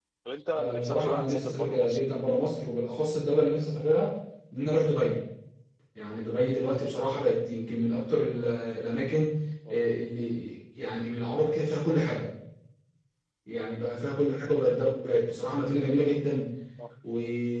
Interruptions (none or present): present